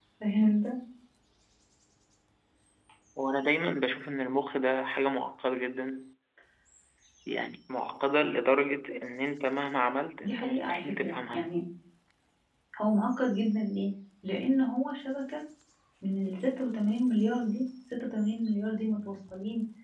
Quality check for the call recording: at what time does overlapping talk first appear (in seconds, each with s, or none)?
10.2 s